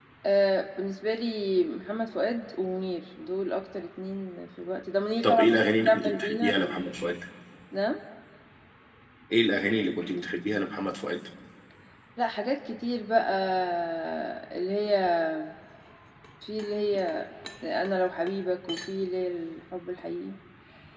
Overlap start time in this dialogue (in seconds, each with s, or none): 5.2 s